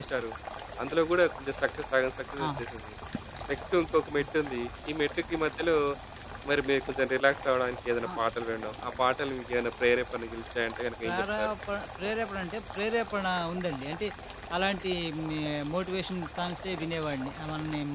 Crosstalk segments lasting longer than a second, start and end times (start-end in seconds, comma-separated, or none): none